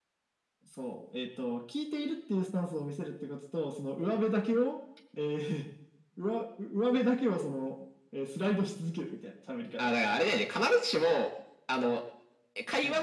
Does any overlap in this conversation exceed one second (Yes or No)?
No